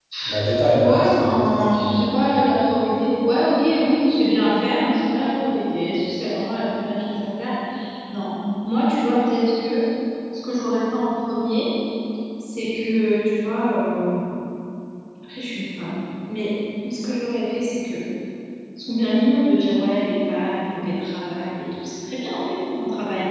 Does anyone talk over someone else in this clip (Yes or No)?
Yes